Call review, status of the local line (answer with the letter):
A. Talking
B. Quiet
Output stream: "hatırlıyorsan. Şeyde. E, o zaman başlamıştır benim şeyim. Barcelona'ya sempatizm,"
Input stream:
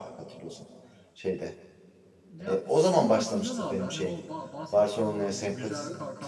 A